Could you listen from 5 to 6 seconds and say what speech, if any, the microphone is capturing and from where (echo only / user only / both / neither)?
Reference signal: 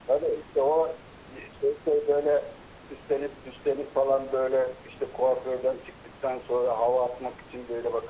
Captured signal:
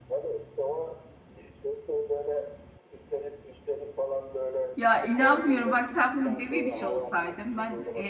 both